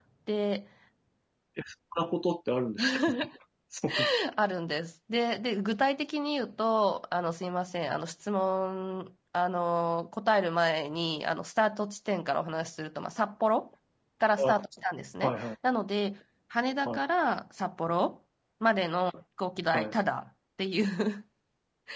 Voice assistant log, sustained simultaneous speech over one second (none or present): none